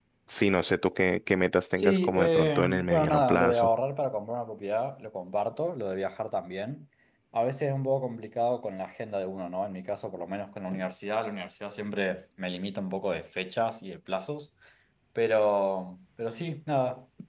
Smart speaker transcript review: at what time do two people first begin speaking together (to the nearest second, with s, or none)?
2 s